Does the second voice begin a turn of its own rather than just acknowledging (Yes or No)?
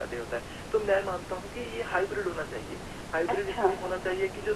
No